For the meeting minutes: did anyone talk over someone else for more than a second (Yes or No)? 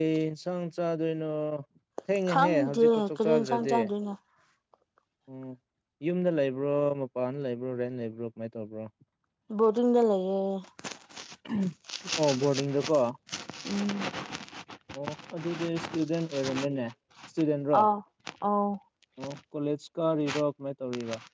Yes